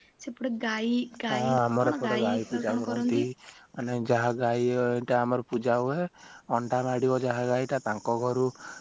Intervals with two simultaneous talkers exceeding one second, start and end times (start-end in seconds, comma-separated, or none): 1.3-3.2